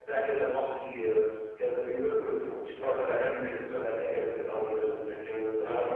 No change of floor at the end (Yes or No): Yes